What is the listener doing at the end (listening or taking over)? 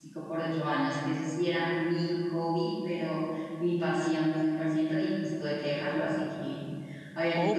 taking over